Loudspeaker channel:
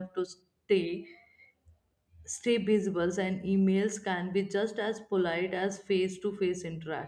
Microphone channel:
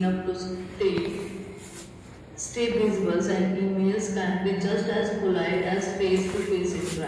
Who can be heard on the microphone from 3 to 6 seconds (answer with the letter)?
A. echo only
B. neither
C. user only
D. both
A